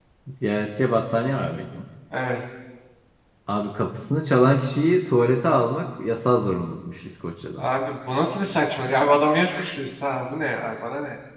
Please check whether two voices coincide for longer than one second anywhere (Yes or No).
No